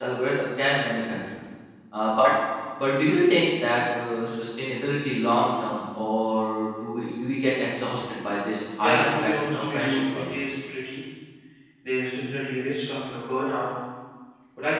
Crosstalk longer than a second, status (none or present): present